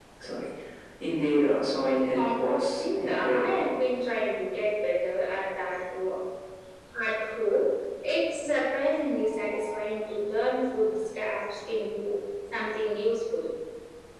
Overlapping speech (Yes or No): Yes